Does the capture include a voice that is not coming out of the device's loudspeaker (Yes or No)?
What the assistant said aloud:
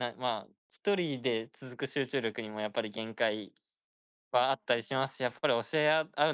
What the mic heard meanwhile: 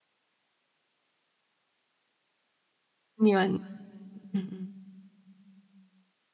Yes